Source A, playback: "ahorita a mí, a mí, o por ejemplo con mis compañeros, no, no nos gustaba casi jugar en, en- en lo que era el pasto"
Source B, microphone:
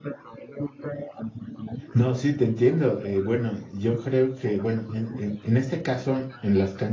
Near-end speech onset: 1.9 s

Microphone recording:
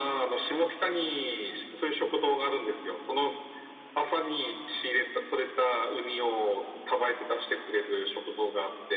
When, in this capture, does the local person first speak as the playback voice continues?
none

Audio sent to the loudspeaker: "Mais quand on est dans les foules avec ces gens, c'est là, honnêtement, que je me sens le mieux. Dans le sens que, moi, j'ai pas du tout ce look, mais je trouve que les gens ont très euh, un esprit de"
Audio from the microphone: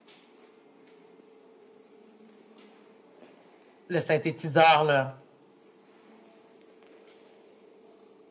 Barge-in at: 3.9 s

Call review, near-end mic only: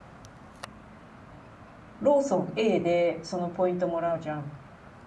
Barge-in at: 2.0 s

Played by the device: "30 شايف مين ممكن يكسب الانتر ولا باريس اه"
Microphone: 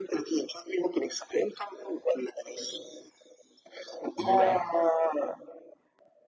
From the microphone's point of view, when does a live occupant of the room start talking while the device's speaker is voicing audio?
4.2 s

